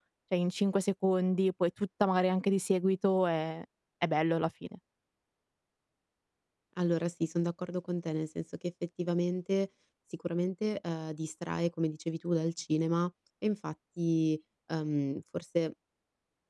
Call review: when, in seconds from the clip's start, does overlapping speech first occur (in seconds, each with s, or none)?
none